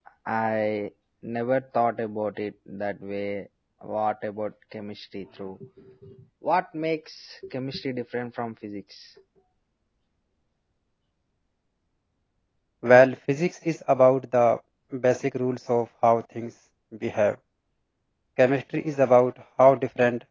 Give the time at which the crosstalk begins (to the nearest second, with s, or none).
none